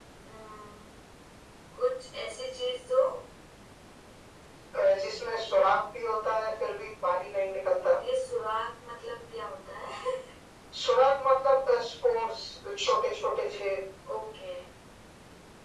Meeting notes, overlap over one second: none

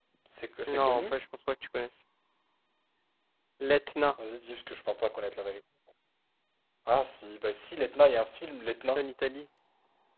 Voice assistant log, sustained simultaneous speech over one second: none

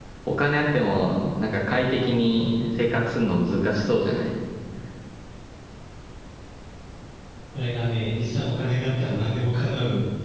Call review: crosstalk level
none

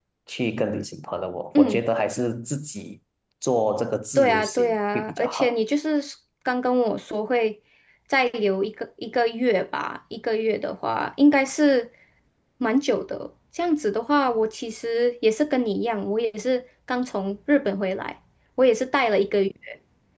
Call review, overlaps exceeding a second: present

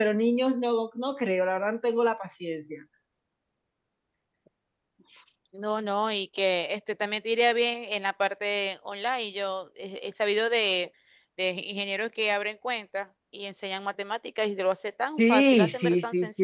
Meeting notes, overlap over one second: present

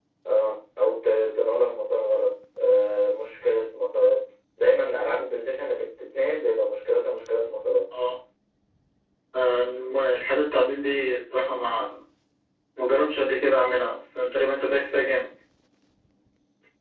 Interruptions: none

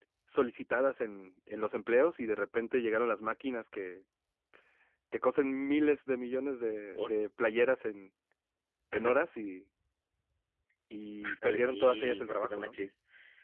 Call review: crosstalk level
present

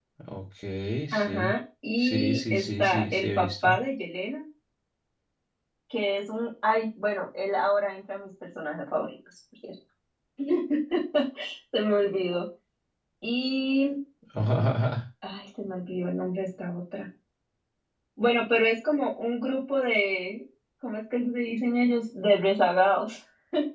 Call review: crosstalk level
present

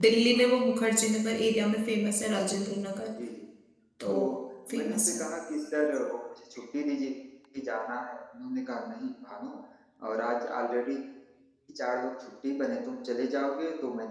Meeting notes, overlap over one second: none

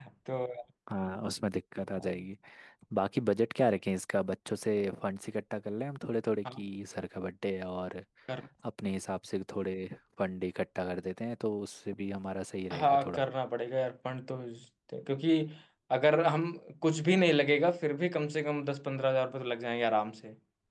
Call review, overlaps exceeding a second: none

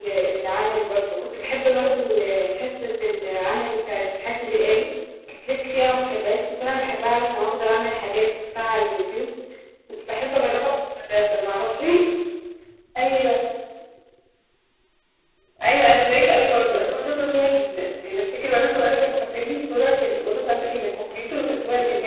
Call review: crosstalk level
none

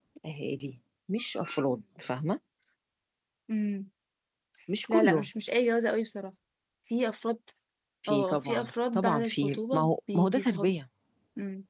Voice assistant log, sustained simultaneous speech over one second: present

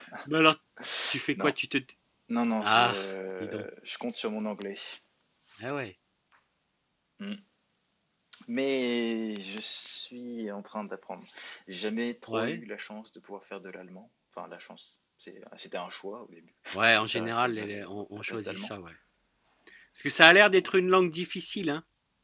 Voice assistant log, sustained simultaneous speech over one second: present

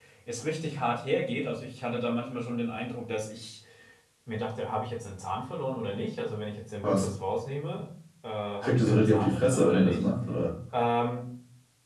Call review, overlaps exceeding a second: present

